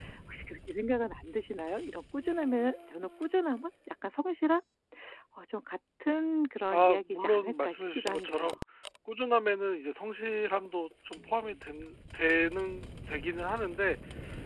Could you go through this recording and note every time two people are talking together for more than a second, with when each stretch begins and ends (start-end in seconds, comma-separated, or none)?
6.7-8.6